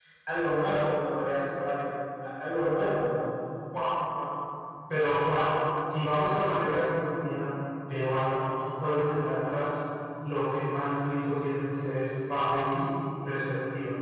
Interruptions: none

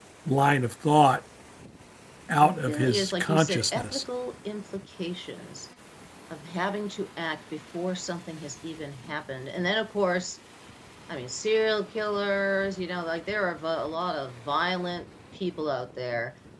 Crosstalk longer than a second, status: present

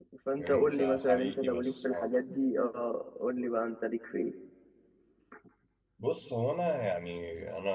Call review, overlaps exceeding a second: present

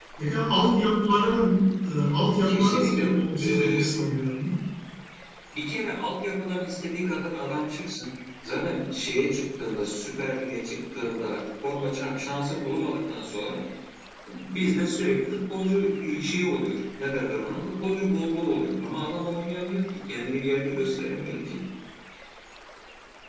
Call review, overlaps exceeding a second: present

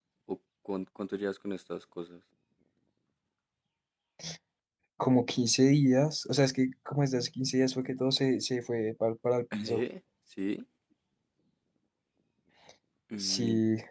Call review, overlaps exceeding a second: none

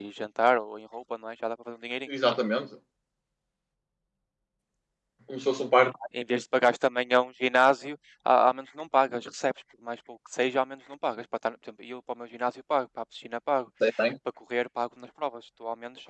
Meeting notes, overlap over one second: none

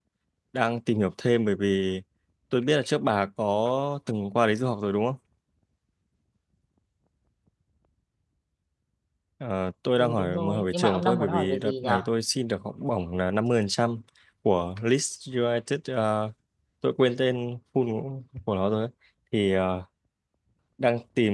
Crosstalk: present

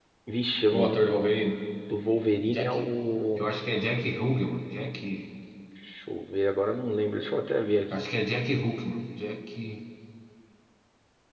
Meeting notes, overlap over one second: none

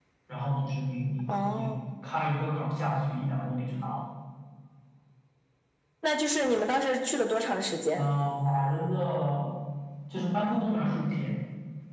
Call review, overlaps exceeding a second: none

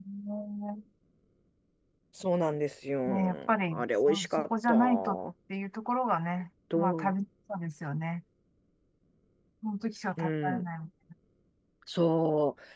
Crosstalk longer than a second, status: present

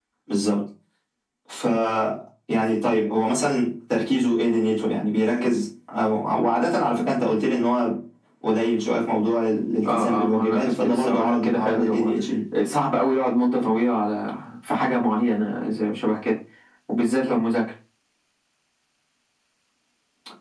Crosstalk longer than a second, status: present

